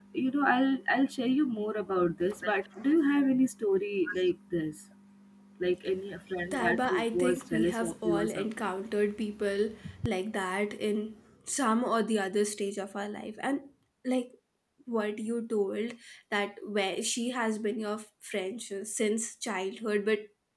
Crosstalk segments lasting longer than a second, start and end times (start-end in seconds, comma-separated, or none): 6.5-8.7